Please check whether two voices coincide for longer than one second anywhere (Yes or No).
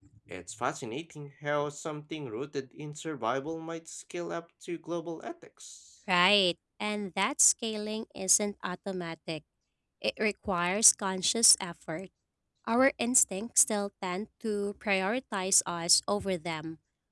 No